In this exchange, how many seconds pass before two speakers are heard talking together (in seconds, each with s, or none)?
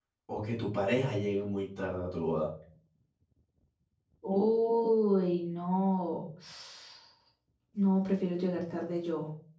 none